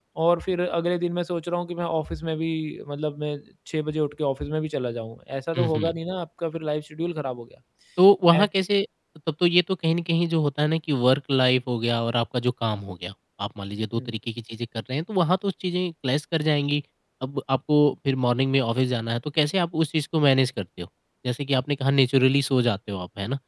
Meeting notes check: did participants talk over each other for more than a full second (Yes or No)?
No